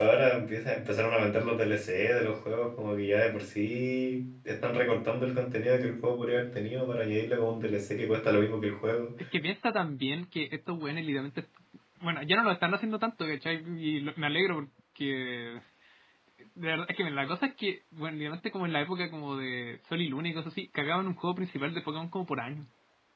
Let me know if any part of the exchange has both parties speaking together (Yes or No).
No